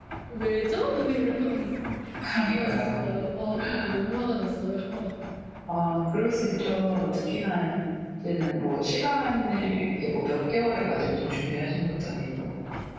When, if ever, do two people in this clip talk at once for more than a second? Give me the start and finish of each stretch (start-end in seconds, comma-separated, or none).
none